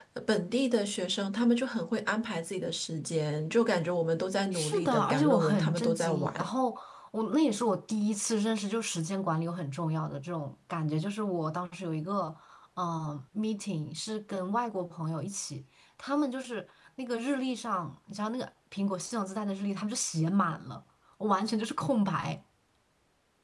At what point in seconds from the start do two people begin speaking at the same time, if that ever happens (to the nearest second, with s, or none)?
5 s